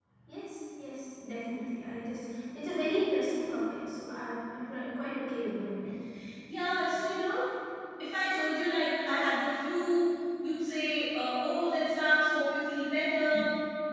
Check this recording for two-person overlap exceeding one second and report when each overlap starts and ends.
none

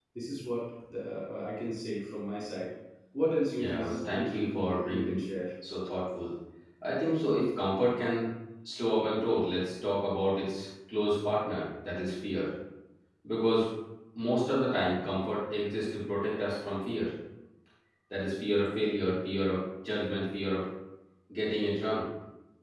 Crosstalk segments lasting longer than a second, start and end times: 3.6-5.2

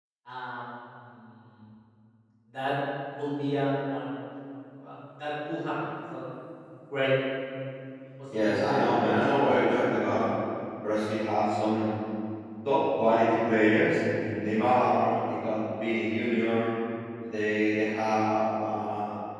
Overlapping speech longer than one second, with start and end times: none

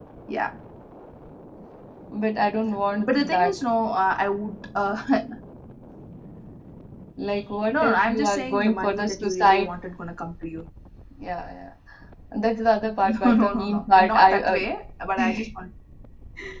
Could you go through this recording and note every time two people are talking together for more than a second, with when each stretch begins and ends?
7.7-9.7, 13.1-14.6

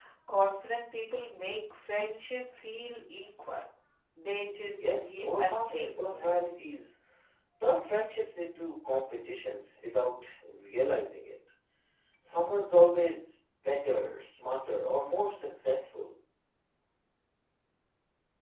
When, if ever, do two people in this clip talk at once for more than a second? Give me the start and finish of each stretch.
4.8-6.4

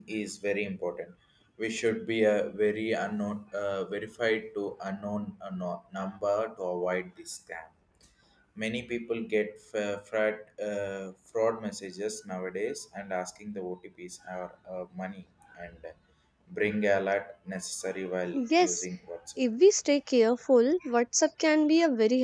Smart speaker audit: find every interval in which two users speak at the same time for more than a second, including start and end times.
none

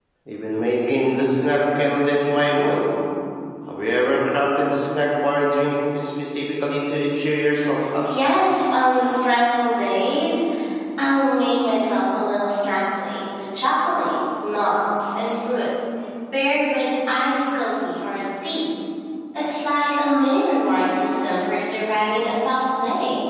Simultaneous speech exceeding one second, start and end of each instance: none

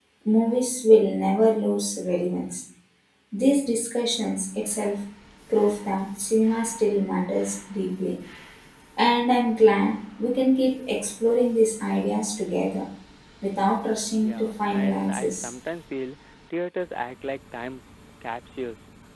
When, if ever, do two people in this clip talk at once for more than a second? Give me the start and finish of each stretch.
14.2-15.5

